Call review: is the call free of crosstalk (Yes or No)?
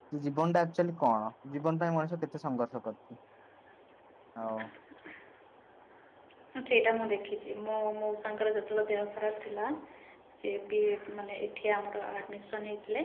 Yes